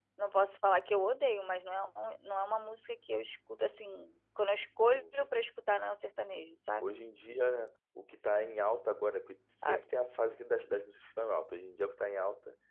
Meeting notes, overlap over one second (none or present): none